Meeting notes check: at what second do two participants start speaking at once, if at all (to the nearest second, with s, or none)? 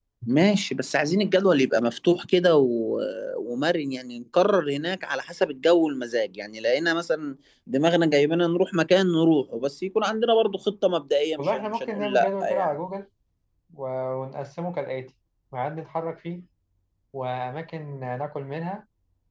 11 s